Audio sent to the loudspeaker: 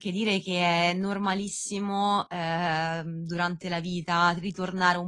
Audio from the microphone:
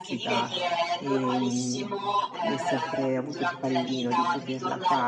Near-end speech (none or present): present